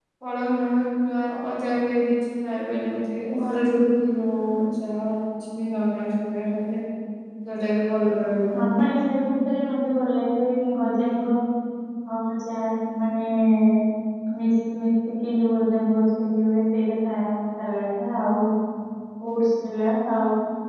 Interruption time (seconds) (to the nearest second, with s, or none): none